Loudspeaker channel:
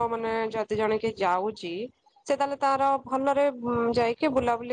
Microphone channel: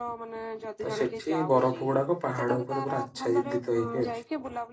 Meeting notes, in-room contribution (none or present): present